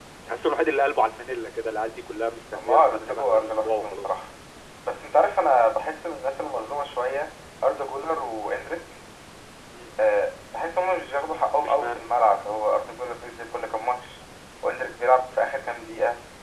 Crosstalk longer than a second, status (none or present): present